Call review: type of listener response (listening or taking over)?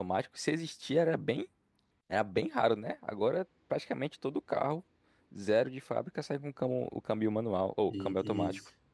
taking over